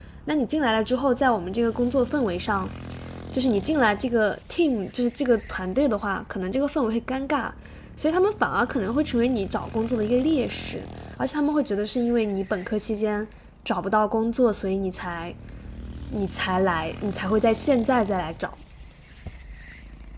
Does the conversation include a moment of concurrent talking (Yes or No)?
No